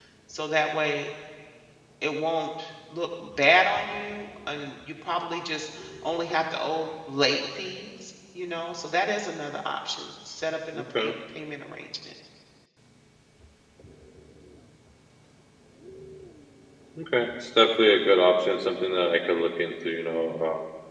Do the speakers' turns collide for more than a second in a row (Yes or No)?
No